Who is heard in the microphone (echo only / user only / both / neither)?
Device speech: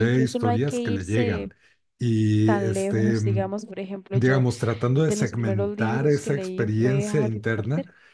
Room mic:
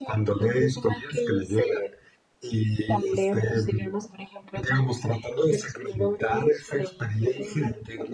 echo only